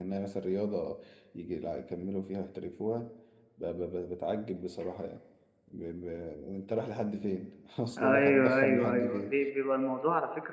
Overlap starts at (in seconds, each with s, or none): 8.0 s